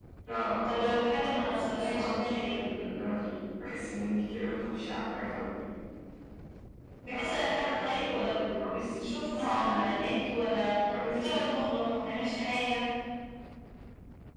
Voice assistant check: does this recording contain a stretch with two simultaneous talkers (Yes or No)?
Yes